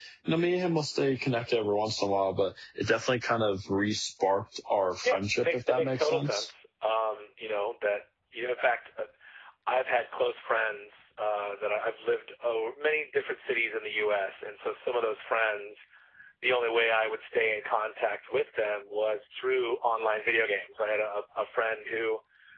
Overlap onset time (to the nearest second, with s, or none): 5 s